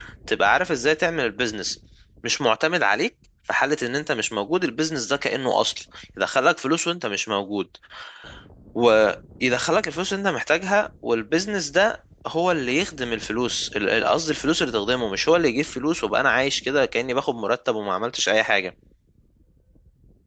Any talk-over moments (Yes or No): No